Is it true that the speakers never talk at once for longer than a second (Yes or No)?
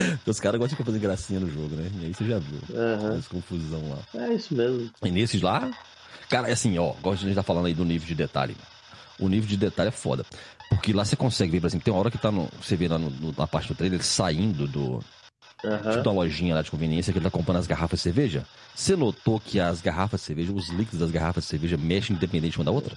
Yes